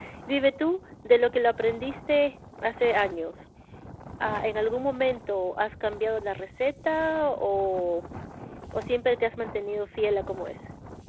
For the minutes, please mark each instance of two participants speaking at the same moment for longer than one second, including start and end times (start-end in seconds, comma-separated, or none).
none